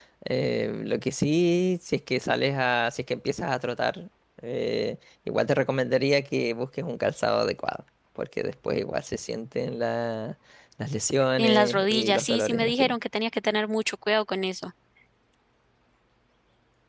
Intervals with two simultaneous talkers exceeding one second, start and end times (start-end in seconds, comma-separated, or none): 11.4-12.9